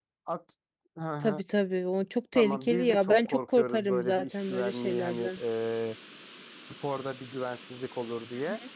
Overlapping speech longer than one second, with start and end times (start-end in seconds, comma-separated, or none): 2.3-5.4